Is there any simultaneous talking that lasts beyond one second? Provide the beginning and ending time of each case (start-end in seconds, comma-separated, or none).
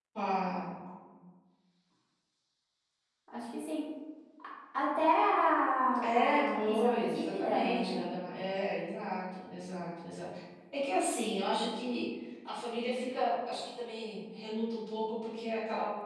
6.0-8.0